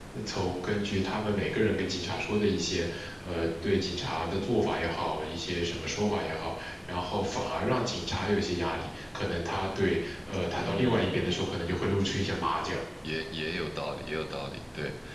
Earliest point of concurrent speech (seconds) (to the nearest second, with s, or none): 11 s